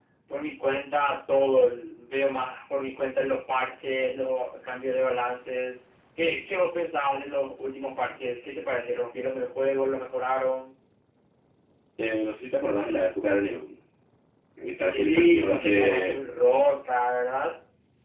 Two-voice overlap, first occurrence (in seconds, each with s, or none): 14.8 s